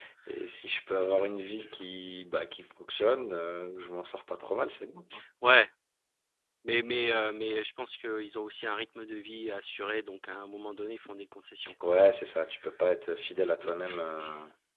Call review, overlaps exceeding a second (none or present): none